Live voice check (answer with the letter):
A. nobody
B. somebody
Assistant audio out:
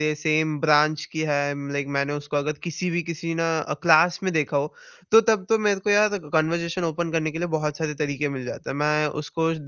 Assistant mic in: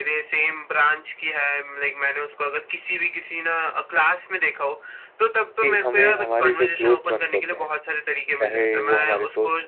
B